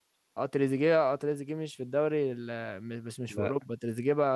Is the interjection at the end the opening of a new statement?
No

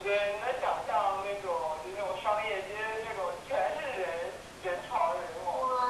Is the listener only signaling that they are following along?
No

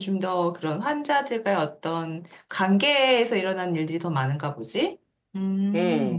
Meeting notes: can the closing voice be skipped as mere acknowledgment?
No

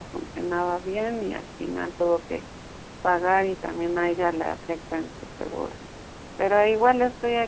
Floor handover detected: No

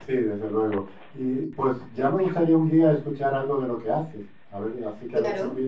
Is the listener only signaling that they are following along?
No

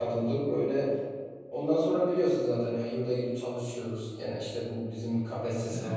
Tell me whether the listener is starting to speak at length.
No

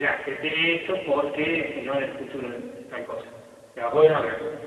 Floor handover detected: Yes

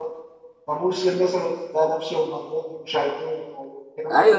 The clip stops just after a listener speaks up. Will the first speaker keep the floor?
No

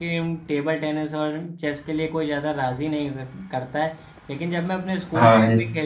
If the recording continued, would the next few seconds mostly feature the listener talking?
No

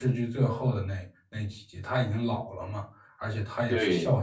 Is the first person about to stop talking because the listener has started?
No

